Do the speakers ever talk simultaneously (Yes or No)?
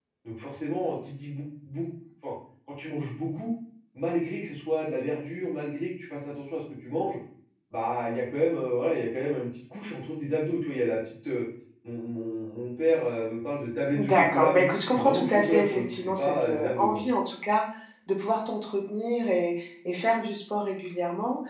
Yes